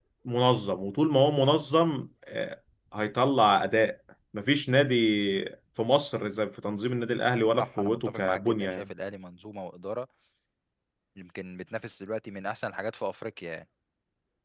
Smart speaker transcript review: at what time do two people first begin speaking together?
8 s

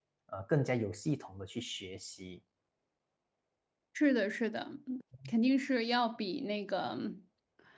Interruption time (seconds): none

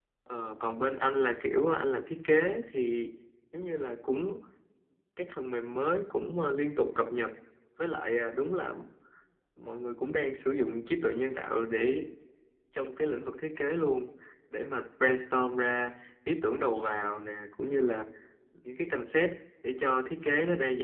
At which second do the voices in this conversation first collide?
none

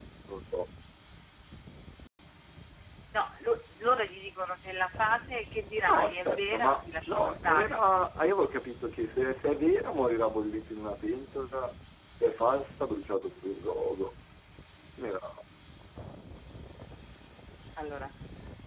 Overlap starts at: 6 s

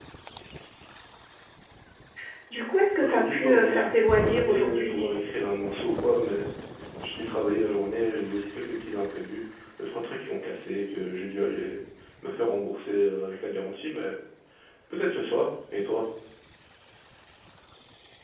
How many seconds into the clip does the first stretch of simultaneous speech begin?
3 s

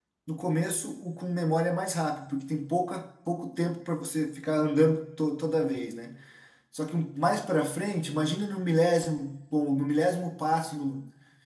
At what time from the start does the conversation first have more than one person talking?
none

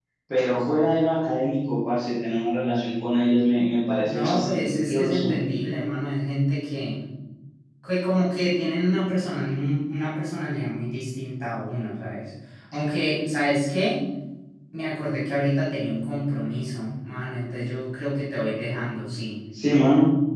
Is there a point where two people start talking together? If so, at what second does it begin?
4 s

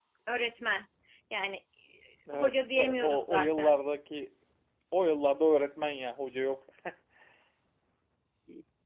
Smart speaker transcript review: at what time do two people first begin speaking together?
2 s

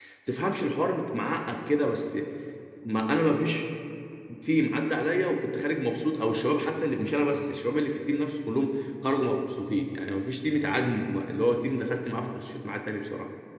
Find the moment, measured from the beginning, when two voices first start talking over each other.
none

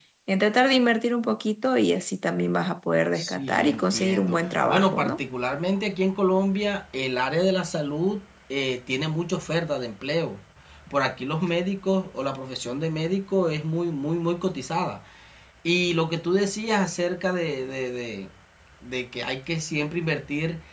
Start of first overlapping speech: 3 s

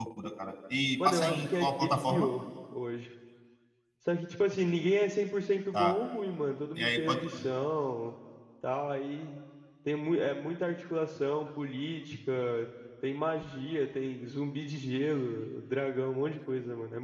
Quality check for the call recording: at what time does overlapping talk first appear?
1 s

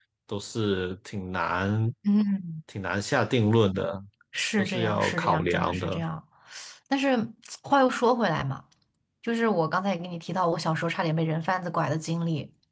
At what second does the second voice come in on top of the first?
5 s

